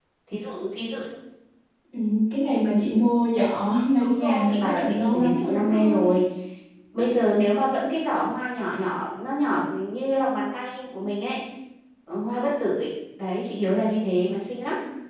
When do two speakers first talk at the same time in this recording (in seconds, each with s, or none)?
4.0 s